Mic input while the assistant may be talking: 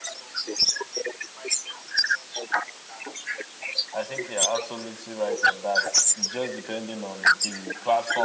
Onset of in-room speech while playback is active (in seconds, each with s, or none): 3.9 s